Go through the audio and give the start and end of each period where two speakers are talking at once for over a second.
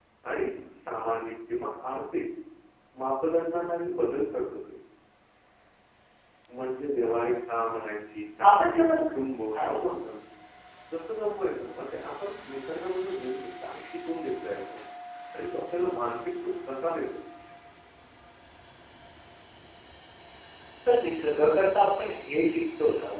none

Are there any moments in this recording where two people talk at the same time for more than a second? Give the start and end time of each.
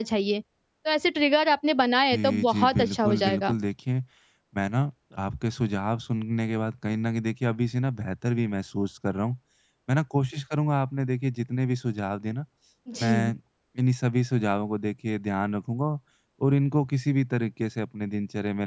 2.1-3.5

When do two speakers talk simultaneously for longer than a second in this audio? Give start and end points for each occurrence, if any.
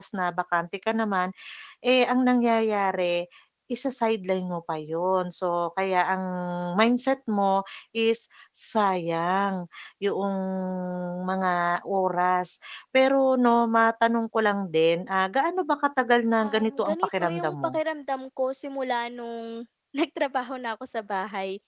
16.4-17.7

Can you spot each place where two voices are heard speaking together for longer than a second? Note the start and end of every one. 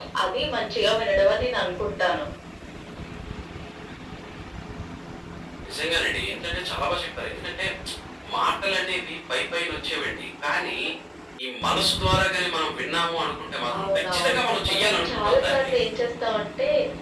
13.8-15.7

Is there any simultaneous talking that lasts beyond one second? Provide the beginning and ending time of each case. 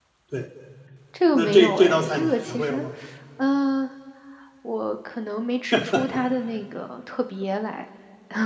1.3-2.8

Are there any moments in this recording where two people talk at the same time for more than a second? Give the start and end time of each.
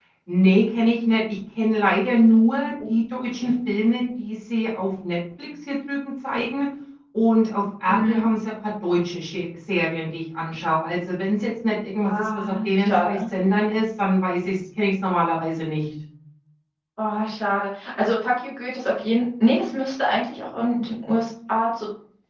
12.1-13.3

